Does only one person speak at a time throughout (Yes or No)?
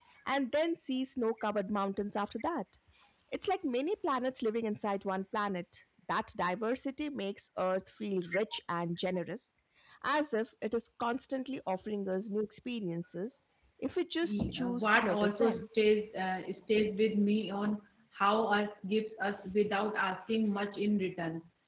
No